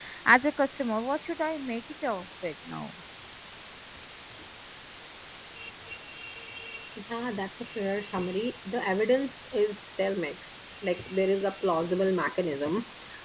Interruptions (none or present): none